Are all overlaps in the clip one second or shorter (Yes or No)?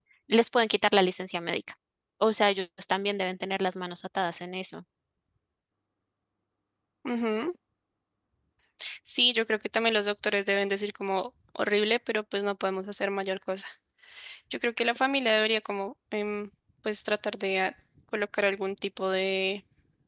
Yes